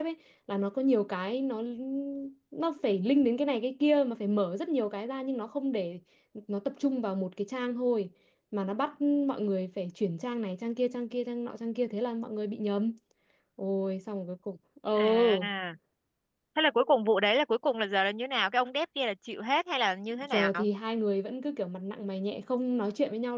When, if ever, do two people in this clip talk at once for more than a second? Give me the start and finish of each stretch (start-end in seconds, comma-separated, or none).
none